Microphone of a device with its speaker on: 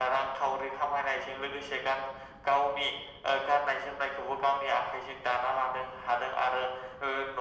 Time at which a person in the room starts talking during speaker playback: none

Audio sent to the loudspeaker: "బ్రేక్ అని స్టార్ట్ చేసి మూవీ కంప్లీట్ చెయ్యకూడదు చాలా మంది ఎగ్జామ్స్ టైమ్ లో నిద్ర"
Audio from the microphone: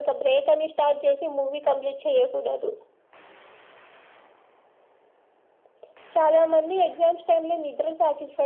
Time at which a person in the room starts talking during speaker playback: none

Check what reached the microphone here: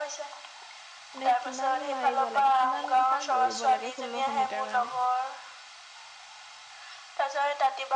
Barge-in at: 1 s

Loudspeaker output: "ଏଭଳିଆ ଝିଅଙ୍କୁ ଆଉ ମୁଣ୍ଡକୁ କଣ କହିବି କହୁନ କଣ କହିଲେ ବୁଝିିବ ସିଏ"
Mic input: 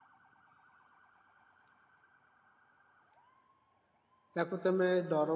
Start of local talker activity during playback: 4 s

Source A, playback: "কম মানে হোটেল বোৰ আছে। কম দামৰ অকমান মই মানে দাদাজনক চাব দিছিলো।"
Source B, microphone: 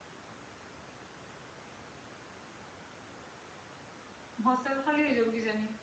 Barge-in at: 4 s

